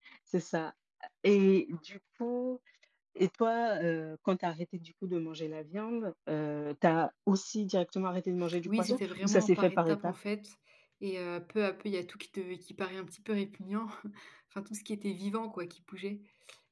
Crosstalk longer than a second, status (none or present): present